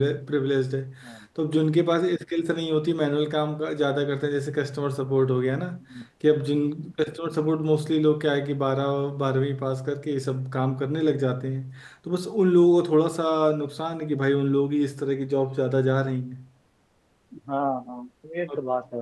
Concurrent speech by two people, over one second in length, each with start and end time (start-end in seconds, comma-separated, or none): none